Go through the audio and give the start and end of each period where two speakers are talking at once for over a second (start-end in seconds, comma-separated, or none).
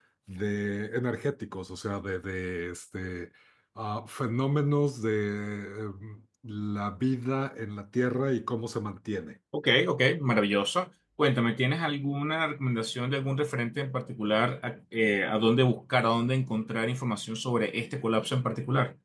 none